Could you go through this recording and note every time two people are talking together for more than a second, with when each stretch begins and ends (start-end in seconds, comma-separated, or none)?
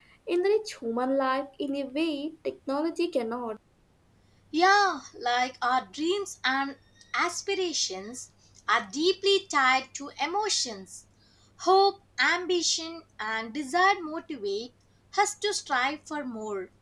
none